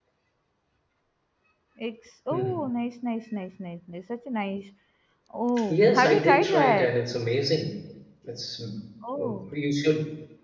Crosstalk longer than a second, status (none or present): present